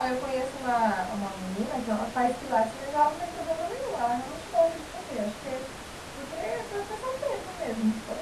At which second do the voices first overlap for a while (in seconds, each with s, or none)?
none